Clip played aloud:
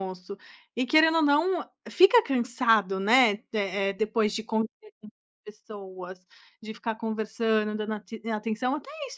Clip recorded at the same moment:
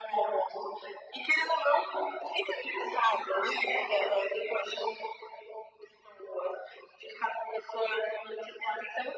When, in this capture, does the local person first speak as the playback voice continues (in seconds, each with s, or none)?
none